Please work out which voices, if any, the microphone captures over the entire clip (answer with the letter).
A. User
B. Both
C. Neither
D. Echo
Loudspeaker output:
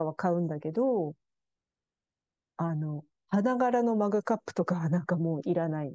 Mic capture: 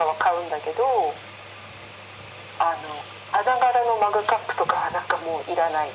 D